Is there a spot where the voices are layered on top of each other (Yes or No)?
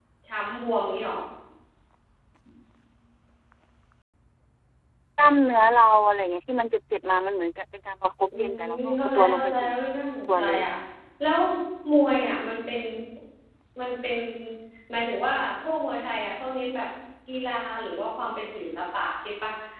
Yes